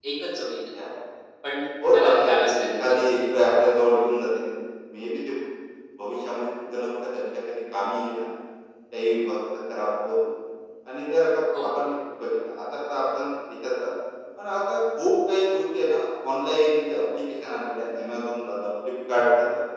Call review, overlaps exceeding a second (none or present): present